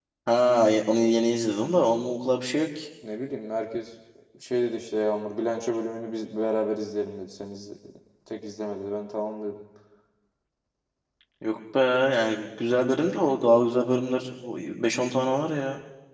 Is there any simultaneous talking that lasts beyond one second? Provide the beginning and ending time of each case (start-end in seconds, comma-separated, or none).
none